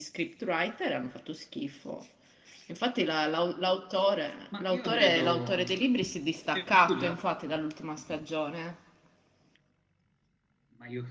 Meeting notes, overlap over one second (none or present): present